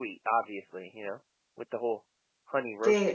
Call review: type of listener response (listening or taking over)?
taking over